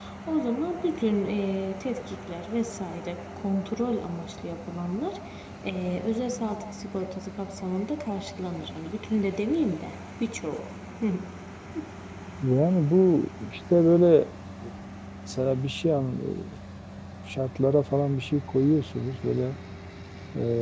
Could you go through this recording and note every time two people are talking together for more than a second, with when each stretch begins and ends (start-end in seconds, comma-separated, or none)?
none